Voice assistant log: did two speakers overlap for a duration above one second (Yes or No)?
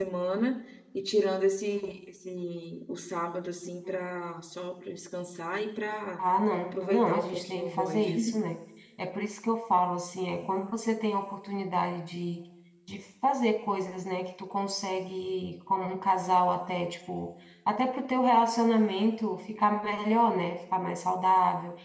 Yes